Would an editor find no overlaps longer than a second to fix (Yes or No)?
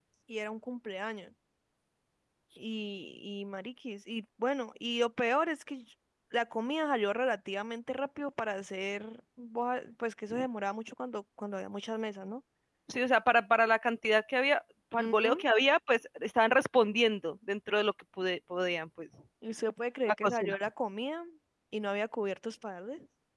Yes